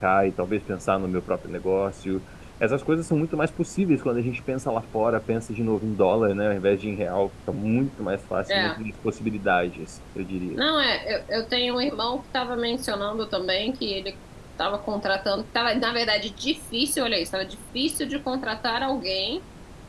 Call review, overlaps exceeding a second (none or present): none